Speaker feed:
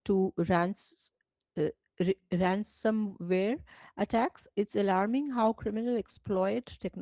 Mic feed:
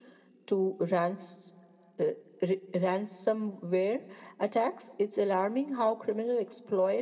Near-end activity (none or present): none